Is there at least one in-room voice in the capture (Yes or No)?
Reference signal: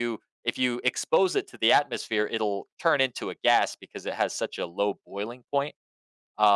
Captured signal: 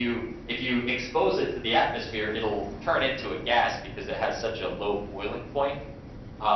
No